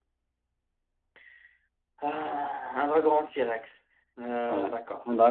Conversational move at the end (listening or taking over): taking over